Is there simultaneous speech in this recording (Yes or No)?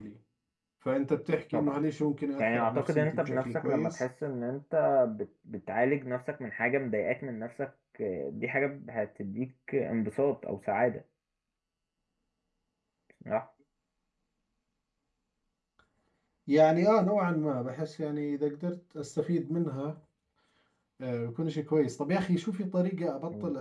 Yes